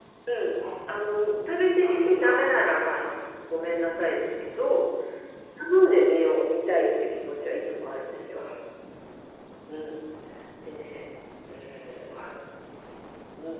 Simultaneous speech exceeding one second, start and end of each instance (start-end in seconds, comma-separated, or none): 1.8-3.1